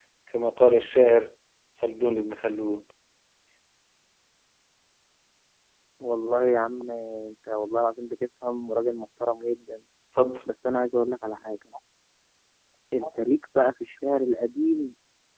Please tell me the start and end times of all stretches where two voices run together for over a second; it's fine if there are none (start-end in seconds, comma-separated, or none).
none